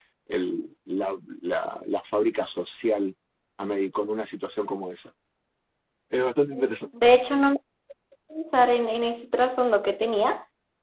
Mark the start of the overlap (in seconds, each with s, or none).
none